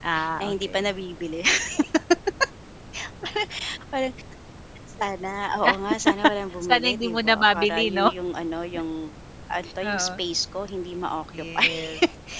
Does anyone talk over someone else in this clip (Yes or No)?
Yes